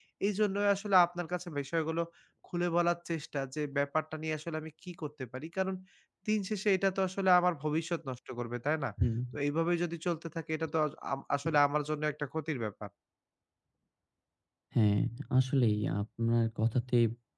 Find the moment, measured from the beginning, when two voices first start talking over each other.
none

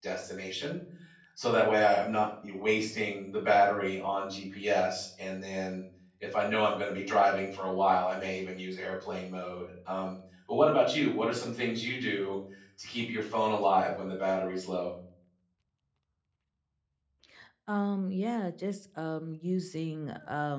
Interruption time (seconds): none

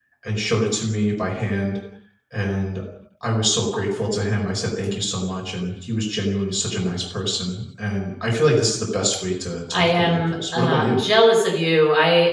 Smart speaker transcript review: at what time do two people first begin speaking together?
9.7 s

